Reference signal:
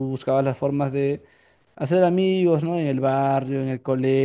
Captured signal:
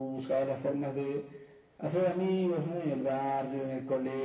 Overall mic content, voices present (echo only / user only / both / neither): echo only